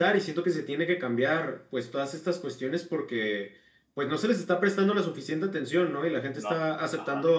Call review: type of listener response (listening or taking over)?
listening